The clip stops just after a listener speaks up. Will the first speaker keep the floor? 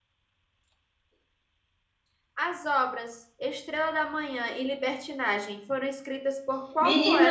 No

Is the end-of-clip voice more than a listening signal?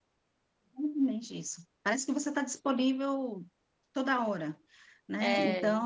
No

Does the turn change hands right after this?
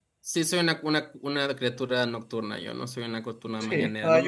Yes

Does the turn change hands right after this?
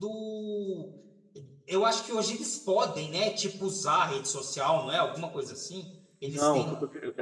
Yes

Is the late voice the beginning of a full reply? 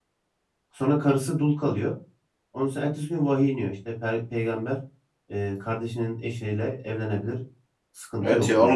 Yes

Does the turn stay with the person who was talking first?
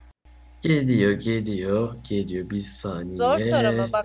No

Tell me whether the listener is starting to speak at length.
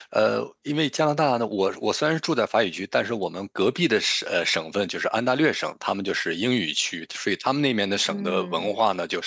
No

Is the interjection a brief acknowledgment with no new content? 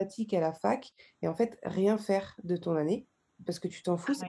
Yes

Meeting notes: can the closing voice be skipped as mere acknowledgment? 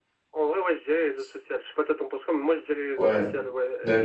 No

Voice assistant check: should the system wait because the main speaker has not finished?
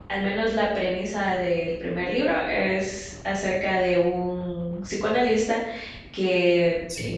Yes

